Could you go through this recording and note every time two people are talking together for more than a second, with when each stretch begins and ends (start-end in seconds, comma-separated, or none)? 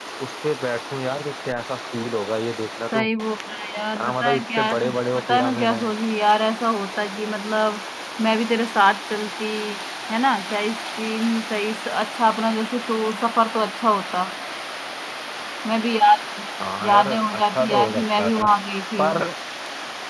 4.0-5.8, 16.8-18.4